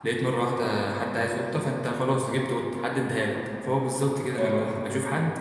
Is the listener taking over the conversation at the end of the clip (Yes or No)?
No